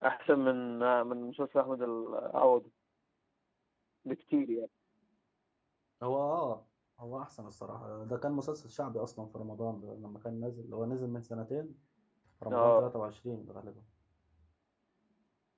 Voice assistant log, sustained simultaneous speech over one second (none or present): none